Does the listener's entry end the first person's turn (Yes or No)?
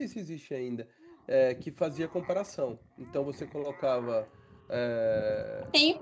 Yes